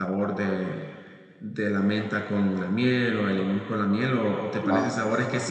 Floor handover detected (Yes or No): No